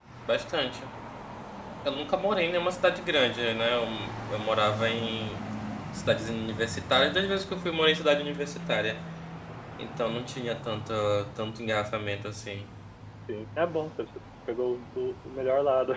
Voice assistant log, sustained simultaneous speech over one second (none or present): none